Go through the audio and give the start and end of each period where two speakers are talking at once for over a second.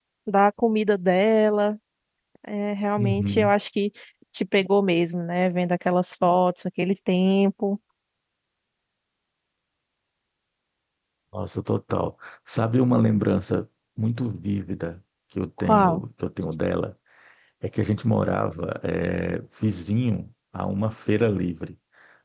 none

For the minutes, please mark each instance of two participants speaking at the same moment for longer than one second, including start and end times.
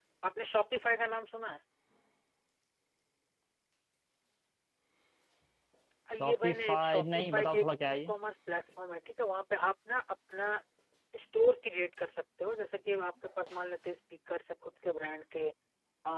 6.2-8.1

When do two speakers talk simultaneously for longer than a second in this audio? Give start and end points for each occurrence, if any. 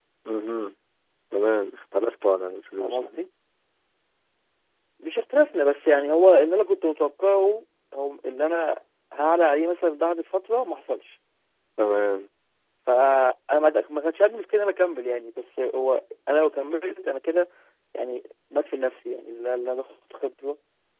none

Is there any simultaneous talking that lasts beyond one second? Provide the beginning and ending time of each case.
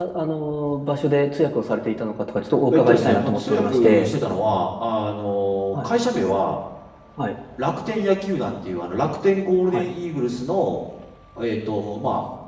2.7-4.1

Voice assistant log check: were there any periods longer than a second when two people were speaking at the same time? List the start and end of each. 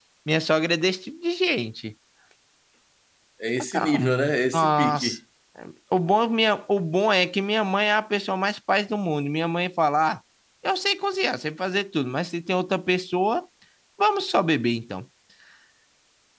3.7-5.2

